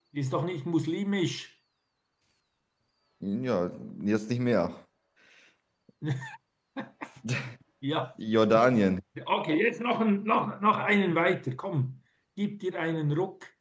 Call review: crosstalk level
none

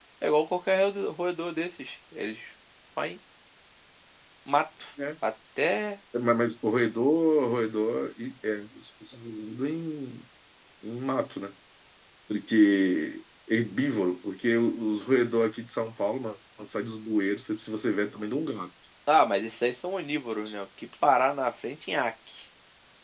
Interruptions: none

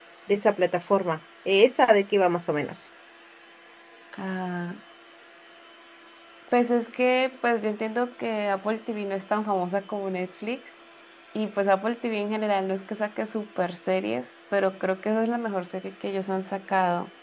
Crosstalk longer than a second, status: none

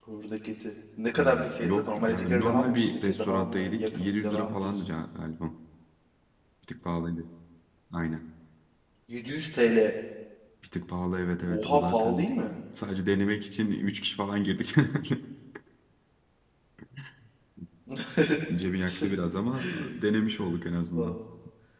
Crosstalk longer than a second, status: present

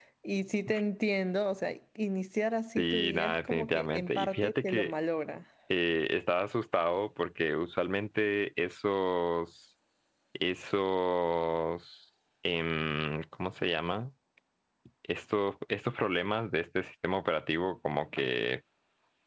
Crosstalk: present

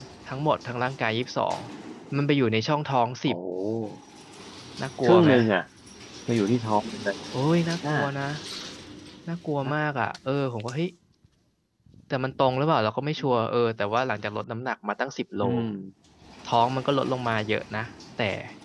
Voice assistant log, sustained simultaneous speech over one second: none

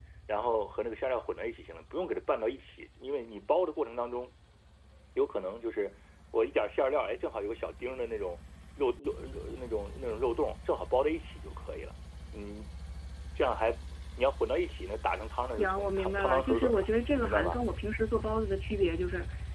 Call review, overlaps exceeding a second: present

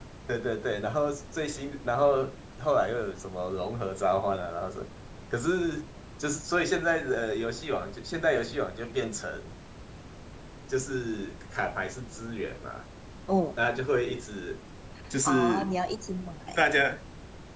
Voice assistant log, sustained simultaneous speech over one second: none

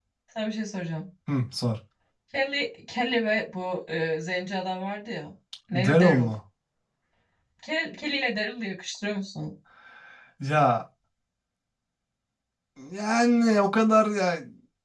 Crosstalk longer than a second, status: none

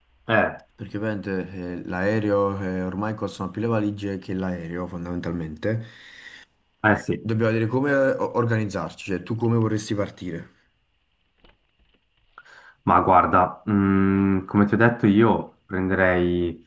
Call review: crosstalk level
none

